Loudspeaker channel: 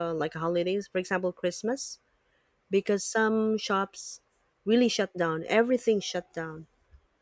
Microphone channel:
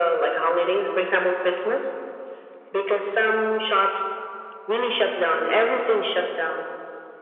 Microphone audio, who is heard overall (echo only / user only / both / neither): echo only